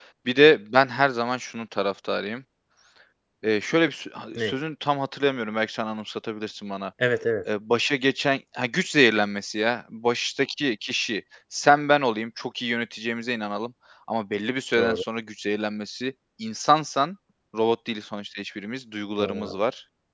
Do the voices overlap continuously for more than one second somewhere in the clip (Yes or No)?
No